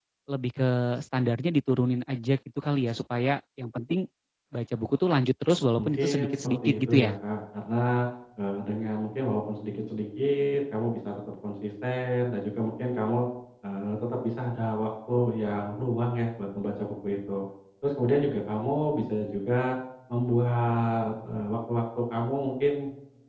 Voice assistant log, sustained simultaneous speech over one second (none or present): present